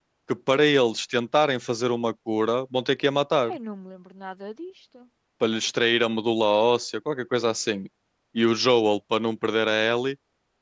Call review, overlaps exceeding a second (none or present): none